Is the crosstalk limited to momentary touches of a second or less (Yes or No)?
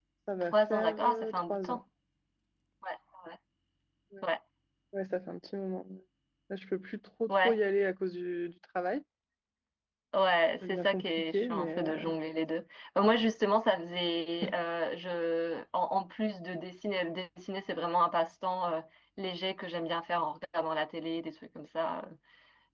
No